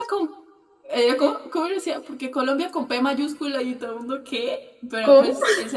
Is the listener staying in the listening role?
Yes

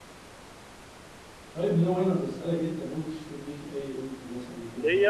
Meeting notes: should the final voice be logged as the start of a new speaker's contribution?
Yes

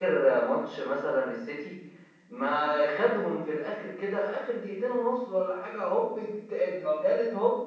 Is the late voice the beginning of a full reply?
No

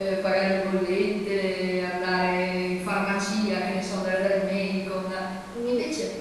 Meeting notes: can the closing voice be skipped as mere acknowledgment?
Yes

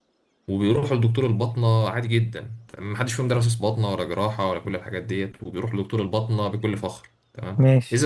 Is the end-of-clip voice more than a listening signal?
No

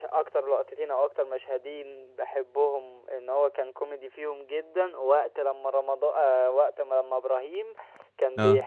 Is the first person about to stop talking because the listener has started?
No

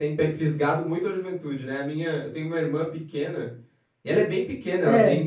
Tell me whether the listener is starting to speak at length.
No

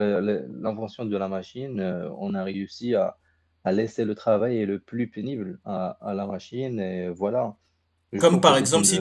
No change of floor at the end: No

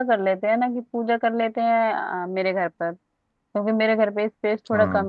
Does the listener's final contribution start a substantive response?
No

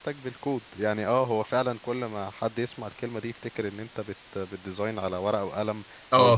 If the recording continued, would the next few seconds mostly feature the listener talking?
Yes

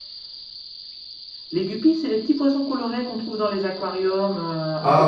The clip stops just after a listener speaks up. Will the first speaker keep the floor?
No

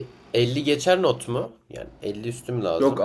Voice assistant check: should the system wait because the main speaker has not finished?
No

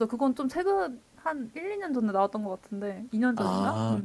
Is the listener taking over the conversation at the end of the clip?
Yes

